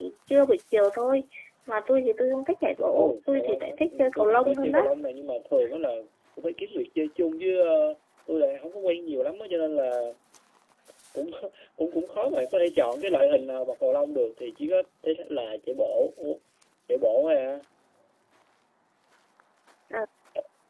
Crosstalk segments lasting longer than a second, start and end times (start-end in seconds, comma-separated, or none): 2.9-4.8